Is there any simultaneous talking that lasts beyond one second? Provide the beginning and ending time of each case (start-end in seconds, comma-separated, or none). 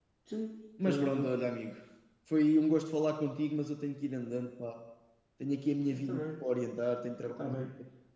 none